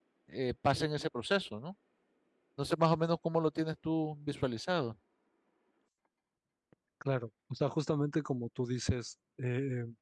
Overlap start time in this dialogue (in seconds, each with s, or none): none